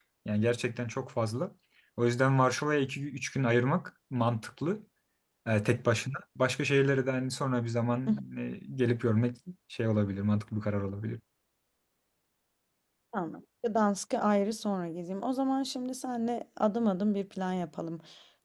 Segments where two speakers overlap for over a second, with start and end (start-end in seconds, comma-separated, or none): none